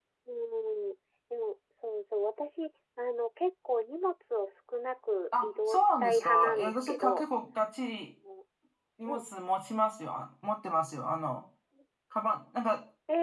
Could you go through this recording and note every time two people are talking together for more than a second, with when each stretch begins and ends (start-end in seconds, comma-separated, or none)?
5.4-7.2